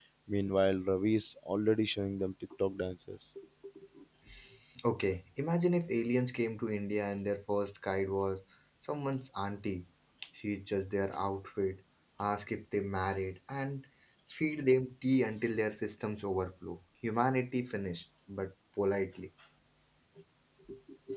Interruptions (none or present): none